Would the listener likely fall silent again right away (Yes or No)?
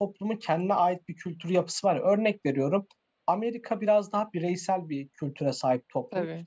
Yes